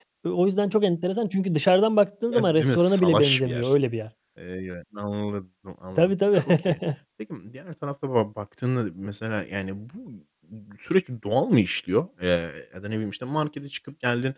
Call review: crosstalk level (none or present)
present